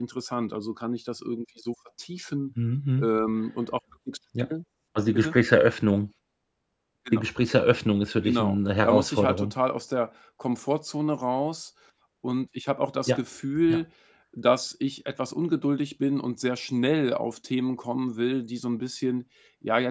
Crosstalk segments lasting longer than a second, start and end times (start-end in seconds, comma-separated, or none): 8.2-9.5